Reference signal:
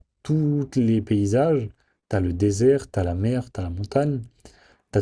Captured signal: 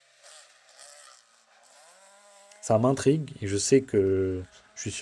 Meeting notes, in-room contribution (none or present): present